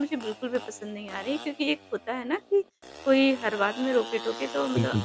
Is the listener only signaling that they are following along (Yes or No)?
Yes